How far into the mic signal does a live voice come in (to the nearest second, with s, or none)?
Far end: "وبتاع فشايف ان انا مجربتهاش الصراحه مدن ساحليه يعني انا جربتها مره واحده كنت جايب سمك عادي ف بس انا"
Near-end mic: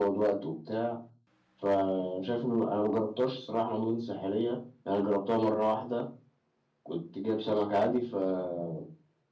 none